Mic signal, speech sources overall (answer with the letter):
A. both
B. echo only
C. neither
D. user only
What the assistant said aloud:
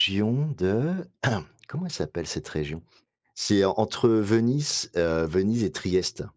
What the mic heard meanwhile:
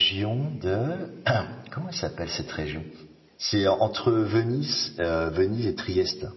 B